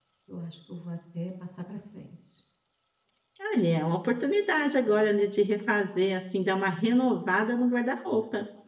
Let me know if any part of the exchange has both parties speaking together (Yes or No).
No